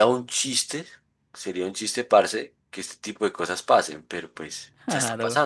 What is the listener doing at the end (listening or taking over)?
listening